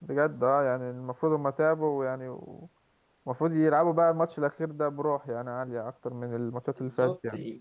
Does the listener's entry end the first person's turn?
Yes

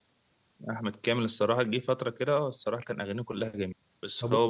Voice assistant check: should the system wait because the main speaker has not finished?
Yes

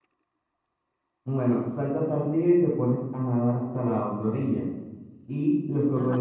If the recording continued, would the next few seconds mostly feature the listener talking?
No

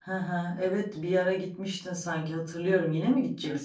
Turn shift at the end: Yes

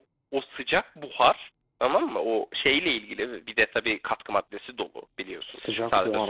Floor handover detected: Yes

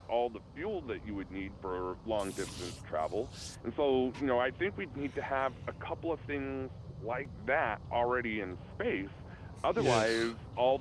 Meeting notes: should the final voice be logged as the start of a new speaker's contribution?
No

